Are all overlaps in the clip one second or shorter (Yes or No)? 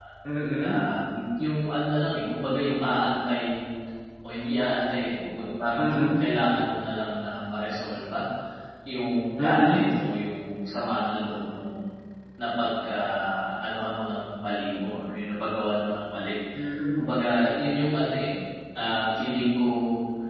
Yes